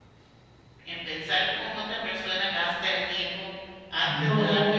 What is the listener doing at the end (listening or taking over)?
taking over